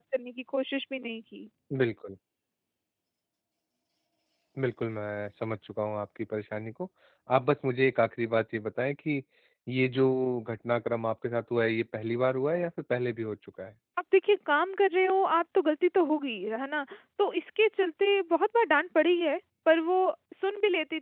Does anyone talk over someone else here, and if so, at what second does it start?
none

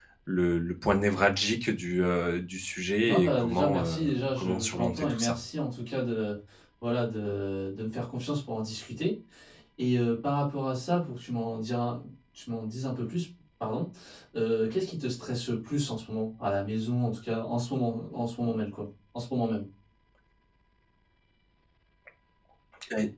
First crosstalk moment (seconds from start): 3.0 s

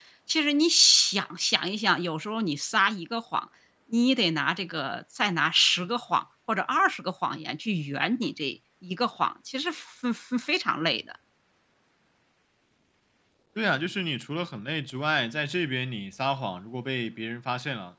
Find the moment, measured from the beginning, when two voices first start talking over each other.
none

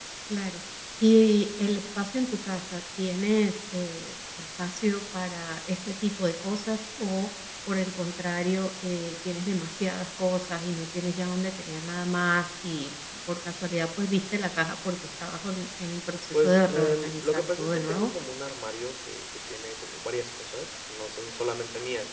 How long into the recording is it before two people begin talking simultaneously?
16.3 s

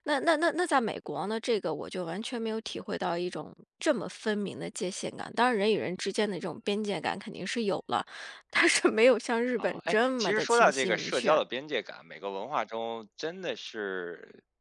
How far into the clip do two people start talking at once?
9.6 s

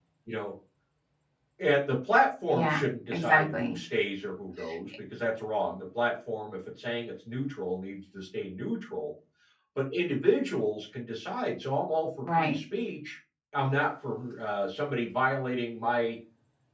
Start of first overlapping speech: 2.5 s

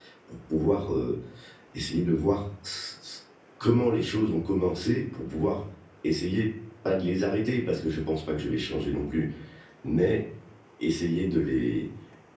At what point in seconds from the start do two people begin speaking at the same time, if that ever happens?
none

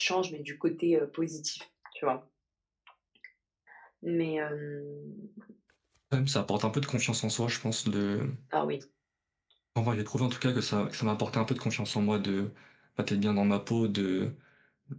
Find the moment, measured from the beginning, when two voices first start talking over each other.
none

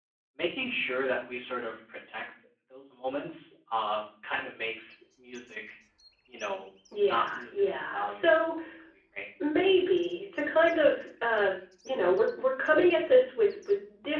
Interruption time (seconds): 7.0 s

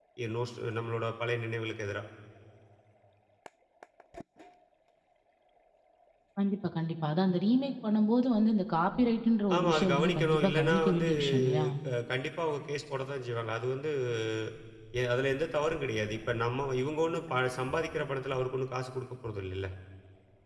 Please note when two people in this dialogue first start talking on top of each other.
9.5 s

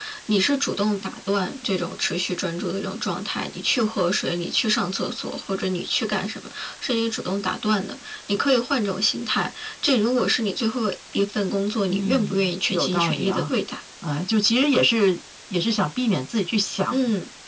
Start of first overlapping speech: 11.9 s

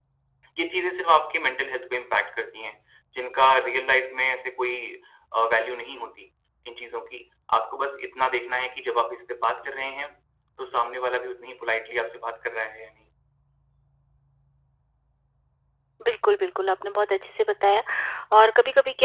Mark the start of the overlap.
none

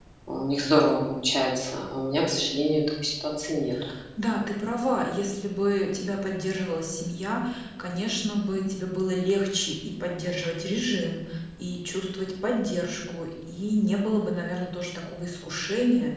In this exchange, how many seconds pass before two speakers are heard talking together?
none

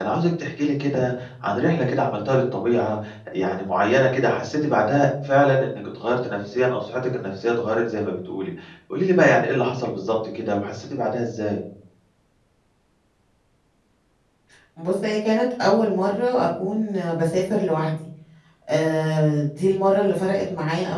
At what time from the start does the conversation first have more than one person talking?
none

